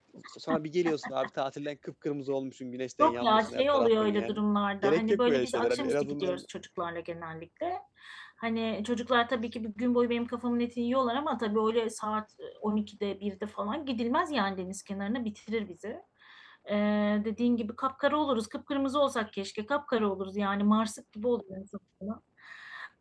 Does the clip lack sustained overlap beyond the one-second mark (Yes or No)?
No